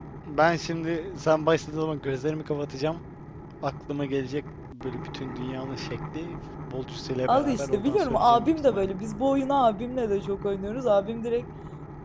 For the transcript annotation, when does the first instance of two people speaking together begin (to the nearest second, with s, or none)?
7 s